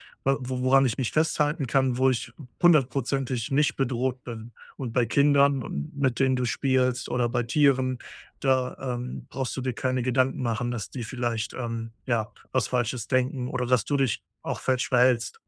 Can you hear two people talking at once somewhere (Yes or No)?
No